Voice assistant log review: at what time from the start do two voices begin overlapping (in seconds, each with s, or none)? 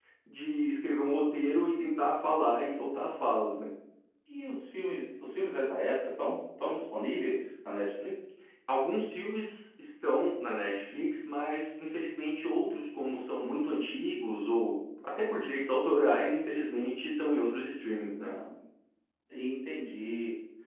none